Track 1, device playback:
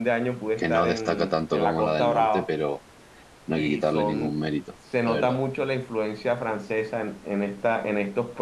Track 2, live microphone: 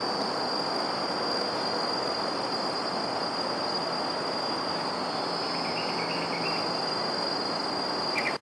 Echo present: No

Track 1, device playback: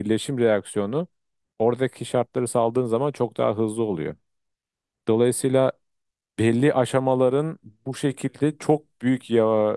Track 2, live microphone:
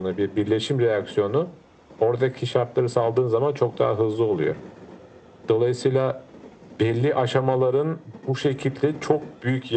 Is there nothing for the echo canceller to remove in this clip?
No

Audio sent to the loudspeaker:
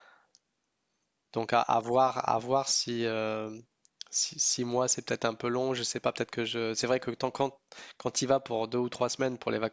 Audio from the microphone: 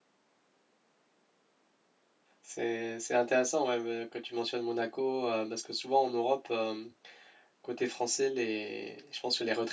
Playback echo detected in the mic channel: No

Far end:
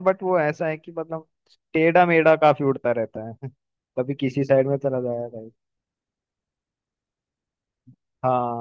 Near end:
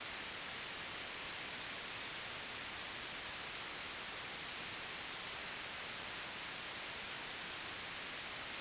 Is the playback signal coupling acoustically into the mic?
No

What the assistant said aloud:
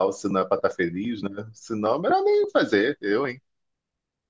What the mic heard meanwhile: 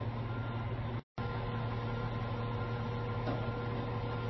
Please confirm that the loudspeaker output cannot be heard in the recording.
Yes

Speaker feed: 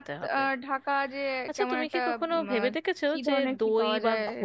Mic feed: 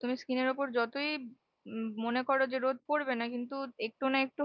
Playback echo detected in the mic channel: No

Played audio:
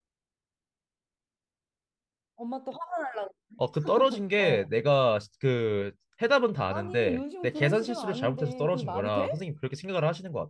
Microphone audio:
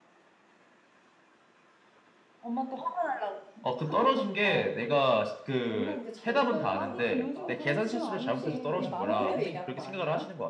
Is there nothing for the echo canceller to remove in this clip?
No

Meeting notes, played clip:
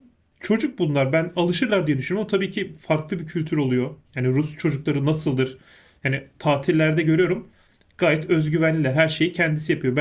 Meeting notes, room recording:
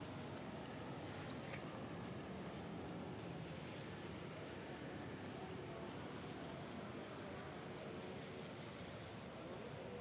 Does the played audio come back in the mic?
No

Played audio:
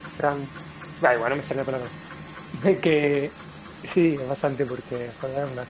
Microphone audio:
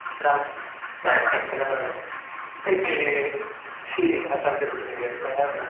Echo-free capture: No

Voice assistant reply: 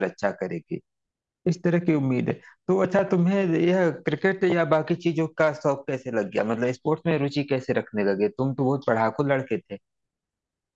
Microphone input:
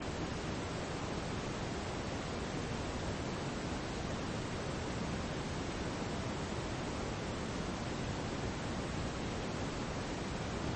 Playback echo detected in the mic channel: No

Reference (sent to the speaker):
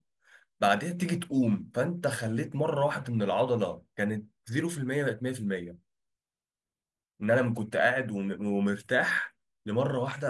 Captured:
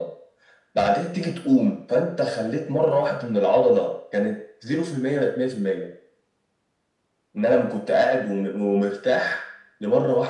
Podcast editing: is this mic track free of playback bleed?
No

